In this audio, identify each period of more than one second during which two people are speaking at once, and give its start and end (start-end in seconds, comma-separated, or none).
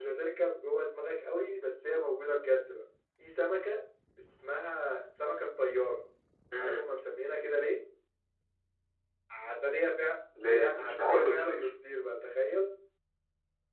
10.5-11.7